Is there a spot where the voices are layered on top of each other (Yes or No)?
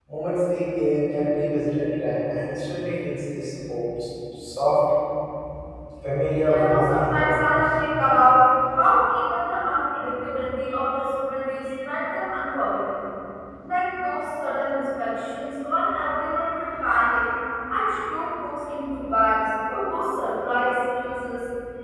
Yes